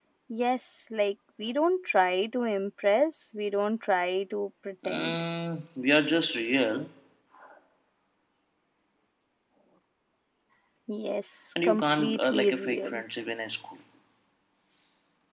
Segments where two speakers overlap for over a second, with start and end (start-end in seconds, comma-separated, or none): 11.6-13.0